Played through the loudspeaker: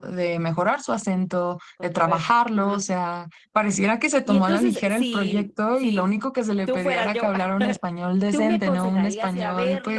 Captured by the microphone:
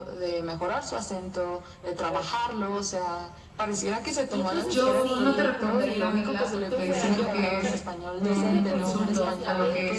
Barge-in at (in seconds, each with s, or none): 4.7 s